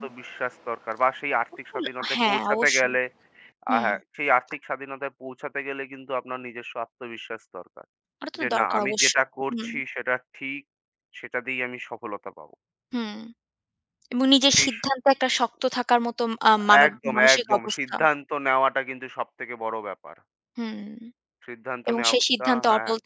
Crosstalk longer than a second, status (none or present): present